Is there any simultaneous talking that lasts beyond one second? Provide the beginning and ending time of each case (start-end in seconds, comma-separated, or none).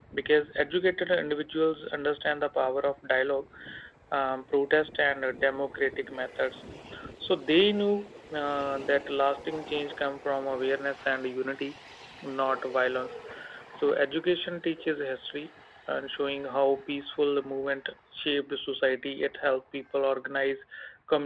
none